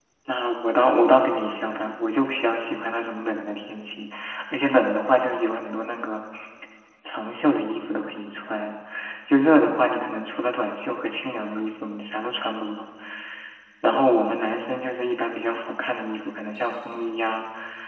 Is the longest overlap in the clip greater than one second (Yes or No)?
No